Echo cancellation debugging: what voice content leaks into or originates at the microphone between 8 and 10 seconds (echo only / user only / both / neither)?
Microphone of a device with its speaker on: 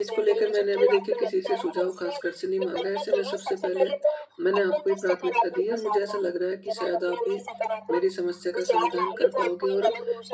both